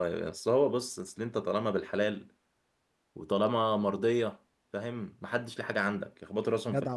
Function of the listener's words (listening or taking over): taking over